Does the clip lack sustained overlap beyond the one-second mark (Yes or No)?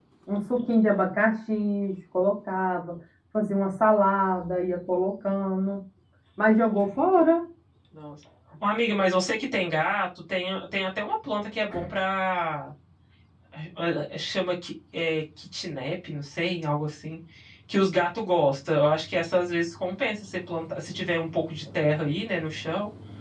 Yes